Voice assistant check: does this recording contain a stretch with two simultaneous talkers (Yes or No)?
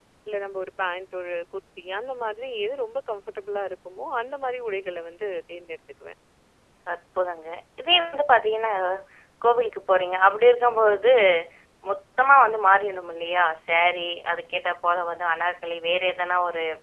No